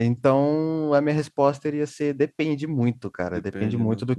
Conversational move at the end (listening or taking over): listening